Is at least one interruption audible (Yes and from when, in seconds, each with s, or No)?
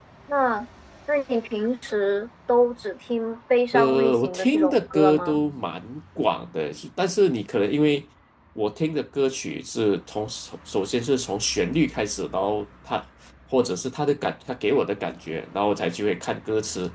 Yes, from 3.7 s